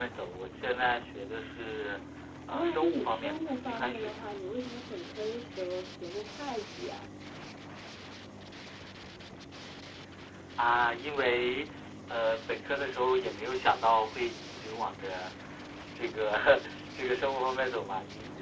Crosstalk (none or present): present